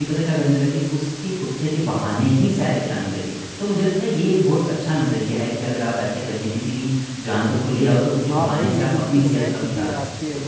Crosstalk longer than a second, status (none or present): present